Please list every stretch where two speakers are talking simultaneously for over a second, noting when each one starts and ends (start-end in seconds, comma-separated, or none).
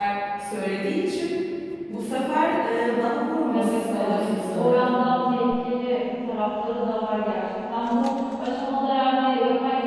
3.5-4.8